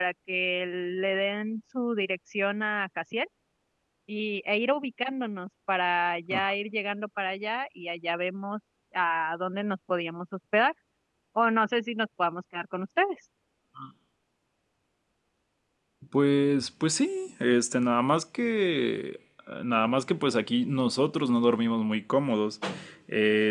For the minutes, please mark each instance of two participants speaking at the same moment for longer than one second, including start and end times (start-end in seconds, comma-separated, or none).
none